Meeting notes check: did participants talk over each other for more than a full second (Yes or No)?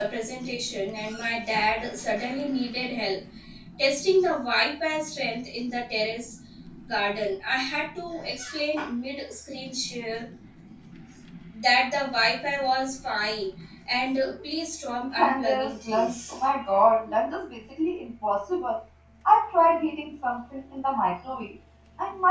Yes